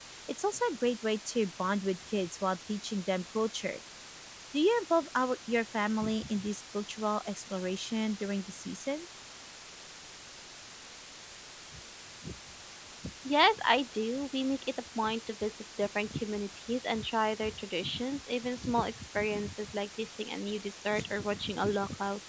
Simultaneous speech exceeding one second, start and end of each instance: none

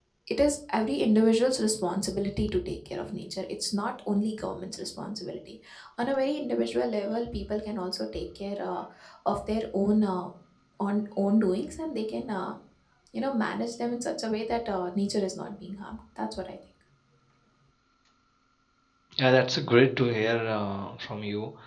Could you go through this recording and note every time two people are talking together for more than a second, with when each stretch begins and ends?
none

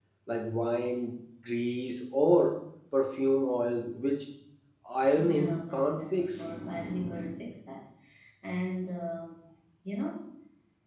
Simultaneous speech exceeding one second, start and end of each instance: 5.2-6.4

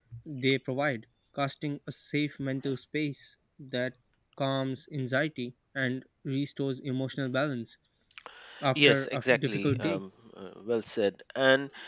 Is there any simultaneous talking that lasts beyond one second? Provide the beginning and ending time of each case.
8.8-10.0

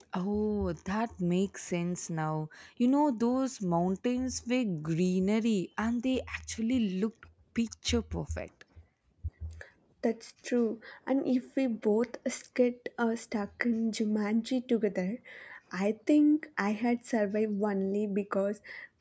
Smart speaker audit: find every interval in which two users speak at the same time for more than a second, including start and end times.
none

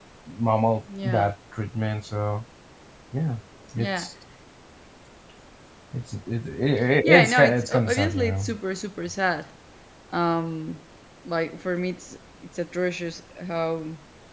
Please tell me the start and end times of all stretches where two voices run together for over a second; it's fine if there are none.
7.0-8.5

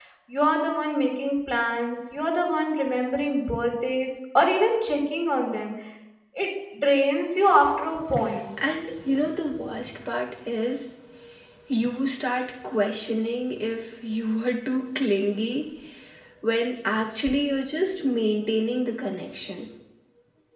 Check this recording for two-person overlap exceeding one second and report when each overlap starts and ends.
none

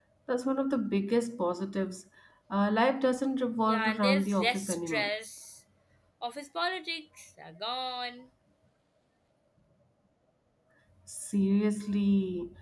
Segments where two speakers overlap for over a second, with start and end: 3.7-5.1

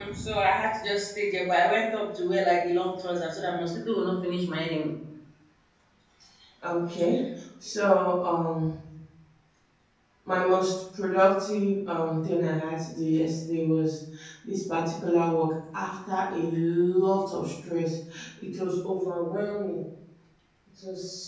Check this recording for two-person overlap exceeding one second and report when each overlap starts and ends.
none

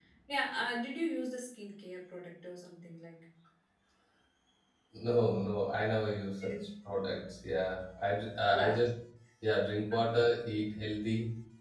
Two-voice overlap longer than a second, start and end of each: none

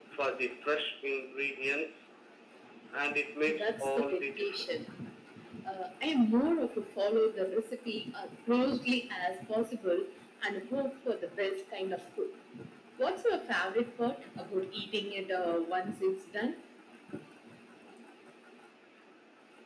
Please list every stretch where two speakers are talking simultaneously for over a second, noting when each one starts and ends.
3.5-4.8

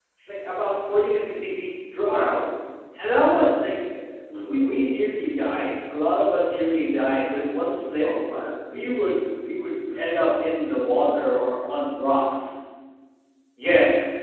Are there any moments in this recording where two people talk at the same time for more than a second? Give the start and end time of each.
none

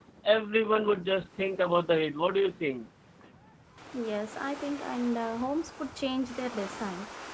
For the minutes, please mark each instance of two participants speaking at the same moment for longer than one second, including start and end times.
none

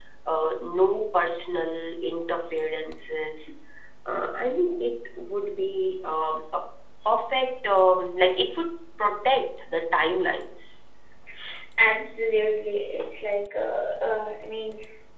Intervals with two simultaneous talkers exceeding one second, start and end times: none

